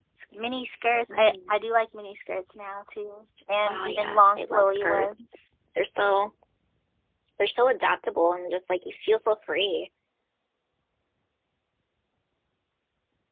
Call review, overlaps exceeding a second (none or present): present